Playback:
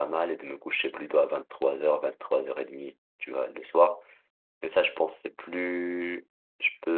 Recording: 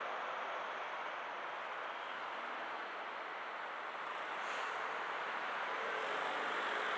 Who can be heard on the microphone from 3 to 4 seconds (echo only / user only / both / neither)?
neither